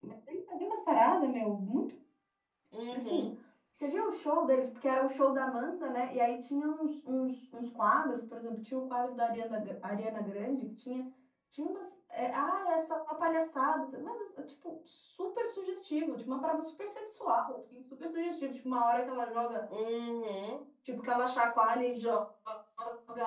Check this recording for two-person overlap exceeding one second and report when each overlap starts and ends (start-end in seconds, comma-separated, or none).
none